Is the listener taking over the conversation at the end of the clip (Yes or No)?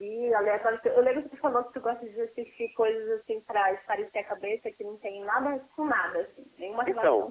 Yes